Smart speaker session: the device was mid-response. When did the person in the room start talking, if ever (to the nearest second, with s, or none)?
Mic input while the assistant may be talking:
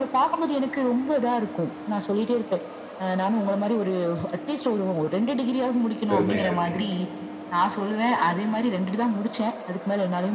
6 s